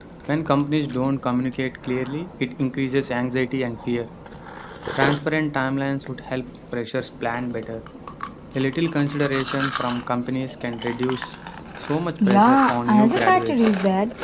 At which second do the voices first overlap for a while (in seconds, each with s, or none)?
12.2 s